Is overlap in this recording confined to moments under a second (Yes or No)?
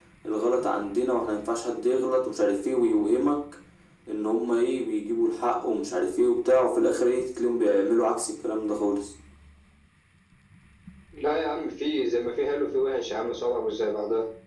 Yes